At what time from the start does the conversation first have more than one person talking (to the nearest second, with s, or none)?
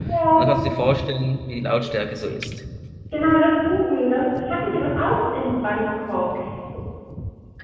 none